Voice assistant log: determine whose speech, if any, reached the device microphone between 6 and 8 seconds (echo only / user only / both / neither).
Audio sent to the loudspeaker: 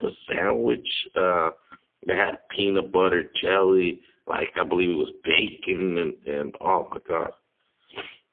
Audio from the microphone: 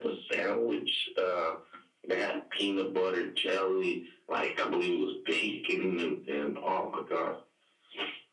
echo only